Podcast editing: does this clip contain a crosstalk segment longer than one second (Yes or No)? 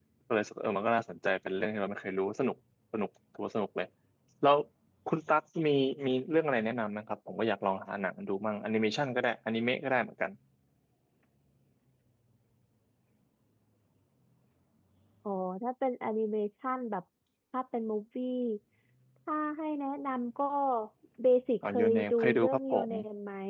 Yes